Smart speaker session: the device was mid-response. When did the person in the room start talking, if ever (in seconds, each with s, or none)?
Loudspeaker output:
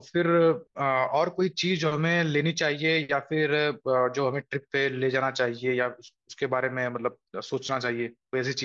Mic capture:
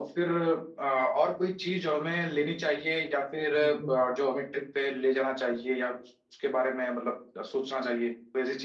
3.6 s